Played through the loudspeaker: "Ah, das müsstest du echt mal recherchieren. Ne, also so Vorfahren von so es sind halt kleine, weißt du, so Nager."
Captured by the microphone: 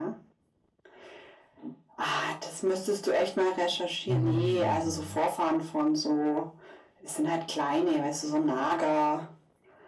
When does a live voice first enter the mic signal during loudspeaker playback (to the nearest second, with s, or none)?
4 s